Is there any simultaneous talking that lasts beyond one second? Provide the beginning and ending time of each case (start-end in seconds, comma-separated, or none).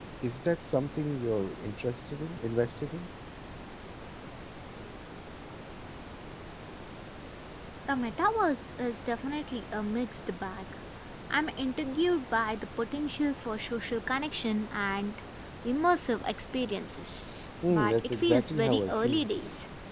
17.7-19.2